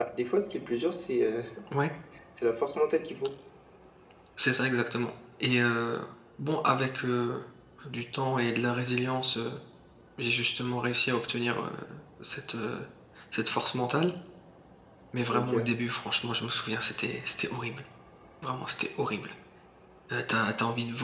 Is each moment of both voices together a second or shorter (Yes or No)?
Yes